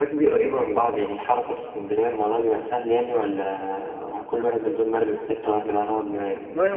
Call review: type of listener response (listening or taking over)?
taking over